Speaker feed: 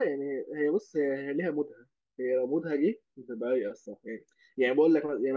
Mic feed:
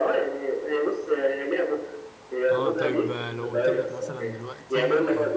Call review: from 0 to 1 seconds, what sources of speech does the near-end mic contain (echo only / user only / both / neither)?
echo only